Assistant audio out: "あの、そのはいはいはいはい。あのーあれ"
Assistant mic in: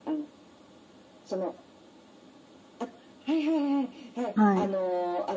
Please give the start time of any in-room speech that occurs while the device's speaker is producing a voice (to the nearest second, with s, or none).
4 s